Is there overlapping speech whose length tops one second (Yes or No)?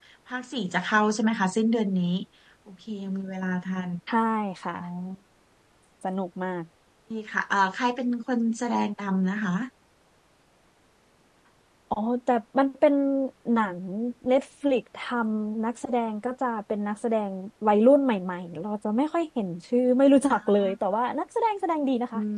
No